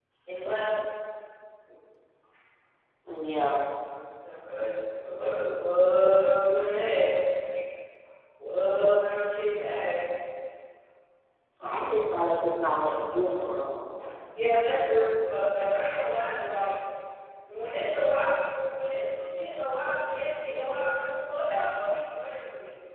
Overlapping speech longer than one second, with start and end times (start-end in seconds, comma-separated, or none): none